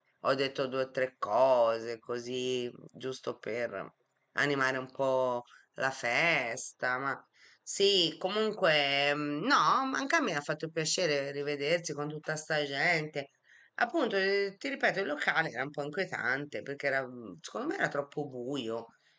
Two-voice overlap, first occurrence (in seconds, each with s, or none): none